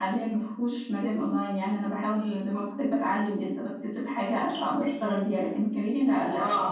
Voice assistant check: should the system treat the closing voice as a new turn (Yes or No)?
No